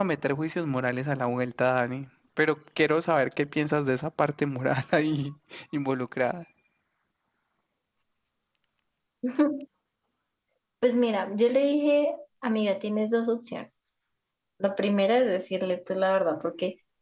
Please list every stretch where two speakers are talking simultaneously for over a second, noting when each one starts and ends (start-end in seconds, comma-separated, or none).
none